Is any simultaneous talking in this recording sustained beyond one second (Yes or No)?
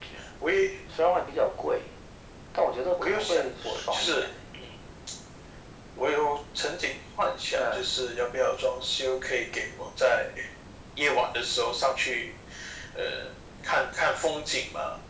Yes